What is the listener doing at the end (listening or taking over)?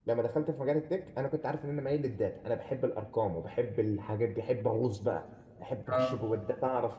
listening